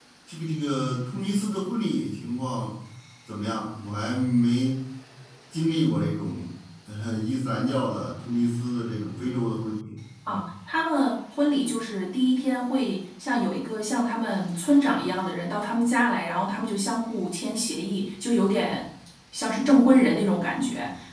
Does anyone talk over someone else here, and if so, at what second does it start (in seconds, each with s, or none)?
none